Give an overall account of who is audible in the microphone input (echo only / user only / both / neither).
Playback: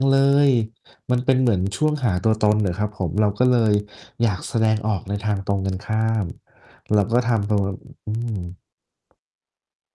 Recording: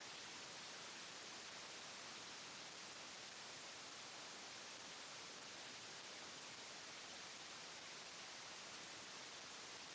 neither